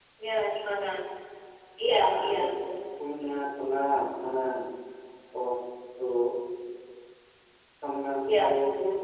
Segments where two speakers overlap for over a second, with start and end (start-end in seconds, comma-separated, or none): none